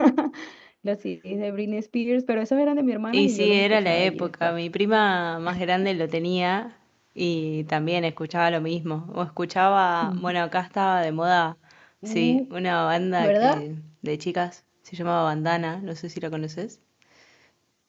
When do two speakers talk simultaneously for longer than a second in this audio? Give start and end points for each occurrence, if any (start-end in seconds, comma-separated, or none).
3.1-4.5